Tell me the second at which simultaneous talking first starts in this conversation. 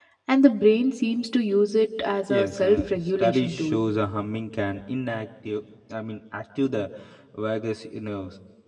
2.3 s

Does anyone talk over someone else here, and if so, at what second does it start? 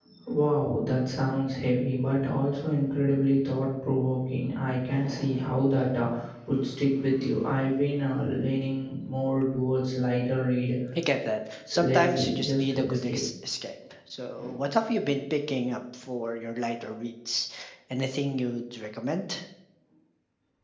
11.8 s

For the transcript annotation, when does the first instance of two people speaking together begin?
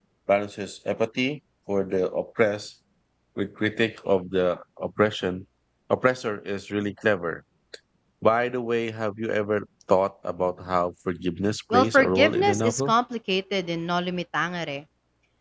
11.7 s

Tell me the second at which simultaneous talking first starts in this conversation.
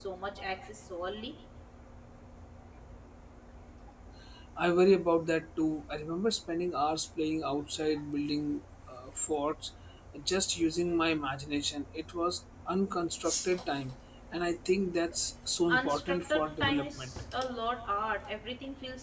15.7 s

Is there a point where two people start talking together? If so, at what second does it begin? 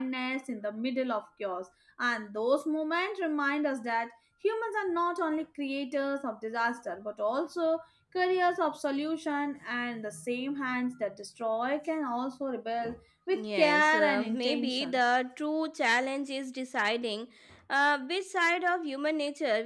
13.3 s

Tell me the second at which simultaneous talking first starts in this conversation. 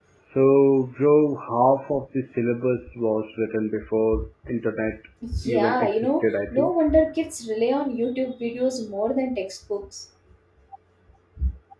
5.5 s

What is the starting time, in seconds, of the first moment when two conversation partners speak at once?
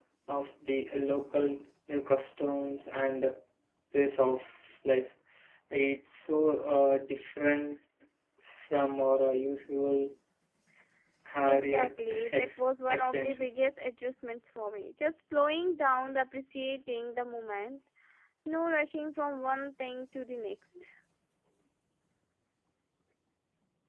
11.5 s

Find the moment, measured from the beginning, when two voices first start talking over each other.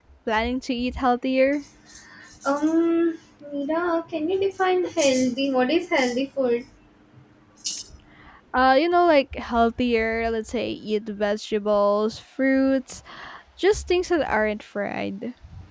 none

